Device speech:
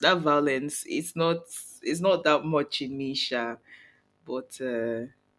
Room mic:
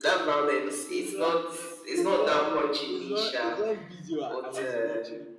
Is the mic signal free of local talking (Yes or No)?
No